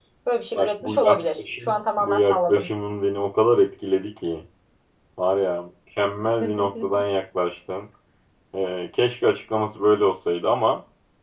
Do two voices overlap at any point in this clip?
Yes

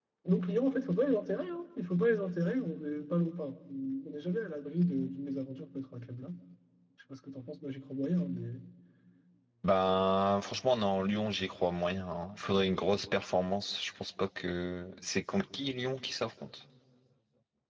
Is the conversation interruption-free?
Yes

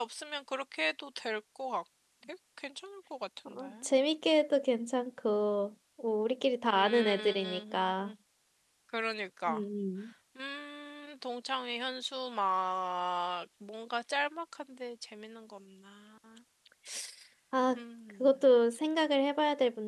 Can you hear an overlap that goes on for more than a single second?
Yes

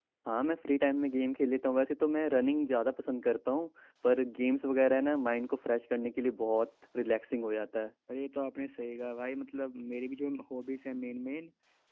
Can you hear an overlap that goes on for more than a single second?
No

